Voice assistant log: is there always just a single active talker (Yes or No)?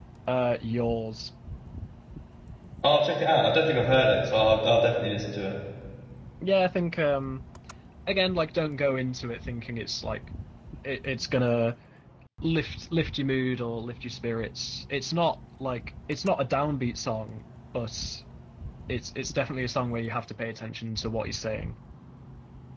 Yes